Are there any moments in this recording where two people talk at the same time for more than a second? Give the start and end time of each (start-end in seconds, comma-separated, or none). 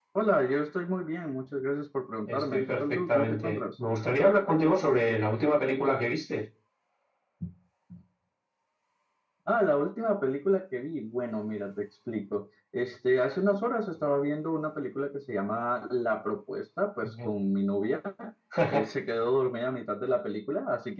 2.3-3.6